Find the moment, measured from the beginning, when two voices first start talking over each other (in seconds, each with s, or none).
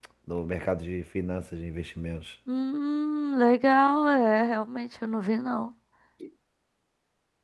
none